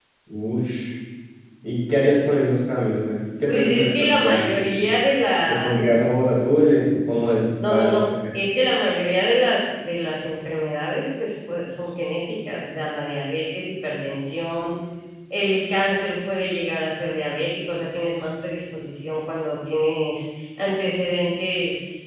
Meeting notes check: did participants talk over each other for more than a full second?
Yes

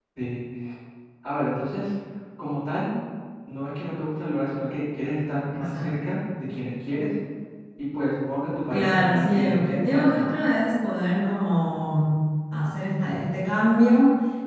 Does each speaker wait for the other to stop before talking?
No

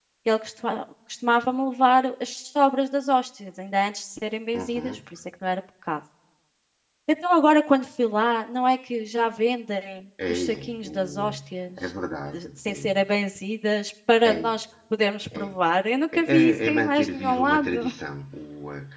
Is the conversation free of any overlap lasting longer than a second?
No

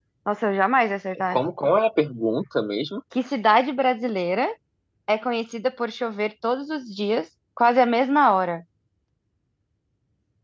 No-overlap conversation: Yes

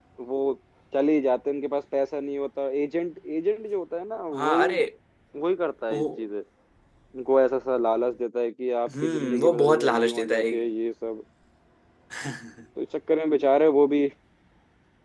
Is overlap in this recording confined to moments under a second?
No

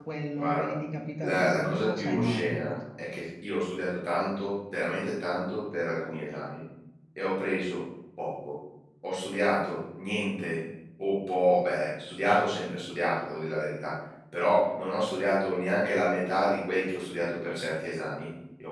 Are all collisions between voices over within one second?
No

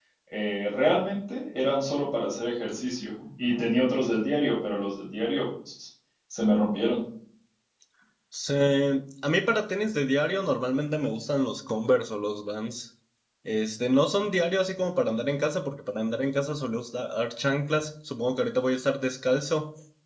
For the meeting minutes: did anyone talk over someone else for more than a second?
No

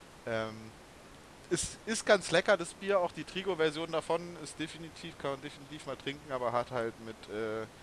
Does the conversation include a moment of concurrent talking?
No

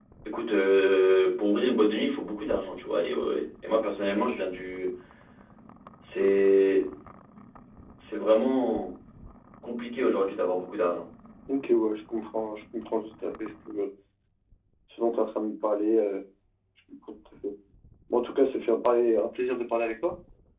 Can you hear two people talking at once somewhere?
No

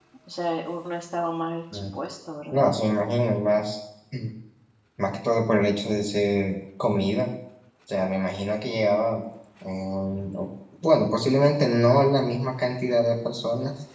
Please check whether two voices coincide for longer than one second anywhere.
No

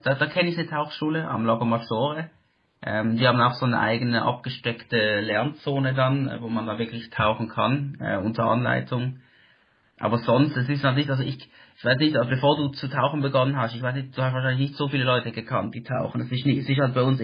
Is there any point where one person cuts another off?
No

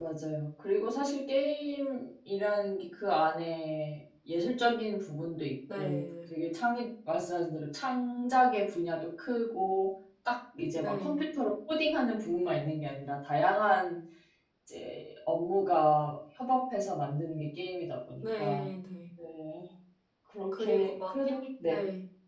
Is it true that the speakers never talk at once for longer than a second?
No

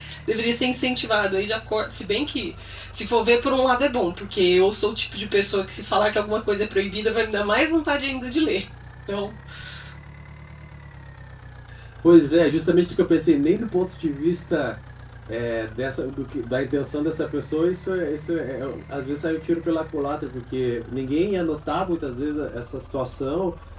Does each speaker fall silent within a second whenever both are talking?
Yes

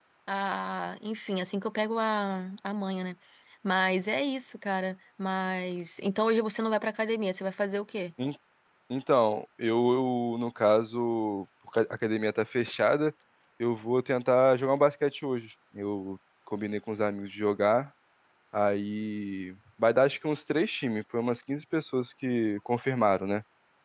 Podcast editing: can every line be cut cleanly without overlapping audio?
Yes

